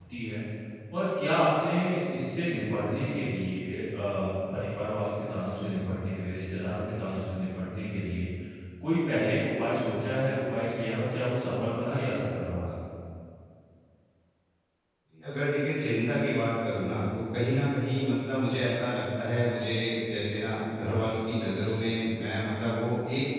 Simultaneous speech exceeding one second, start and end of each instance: none

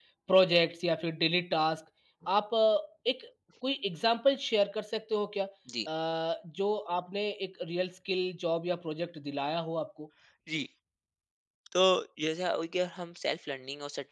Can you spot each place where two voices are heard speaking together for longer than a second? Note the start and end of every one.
none

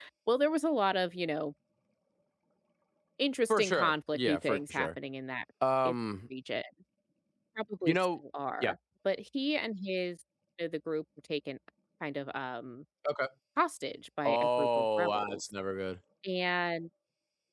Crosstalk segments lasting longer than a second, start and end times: 3.5-4.9, 14.2-15.5

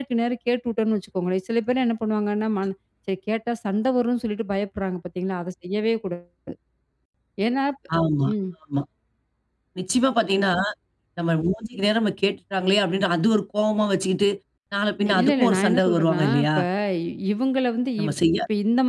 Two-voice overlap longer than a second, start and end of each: 15.2-16.5

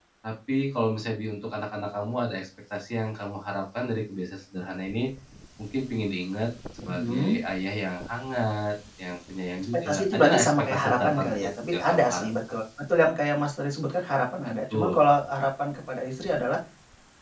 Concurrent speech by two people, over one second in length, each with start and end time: 9.6-12.3

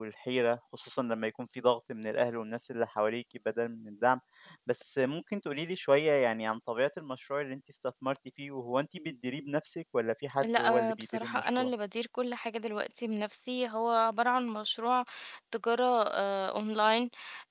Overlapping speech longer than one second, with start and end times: 10.4-11.7

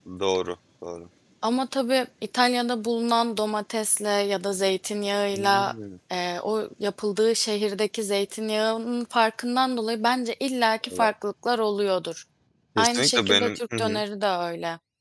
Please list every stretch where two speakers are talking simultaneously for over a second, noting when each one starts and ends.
12.8-14.0

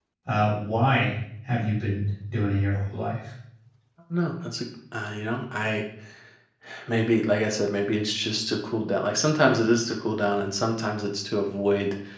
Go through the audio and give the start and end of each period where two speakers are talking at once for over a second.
none

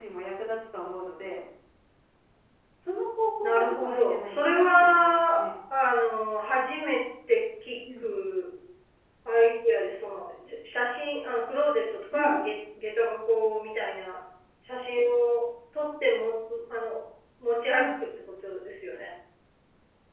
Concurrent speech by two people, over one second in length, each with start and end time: 3.4-5.5

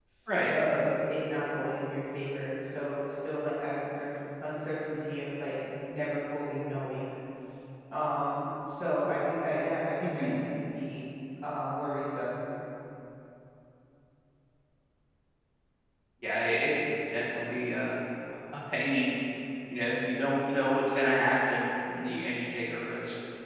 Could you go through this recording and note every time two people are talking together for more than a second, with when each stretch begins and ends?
none

